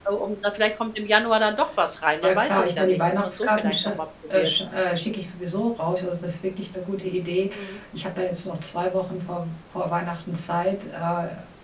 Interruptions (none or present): present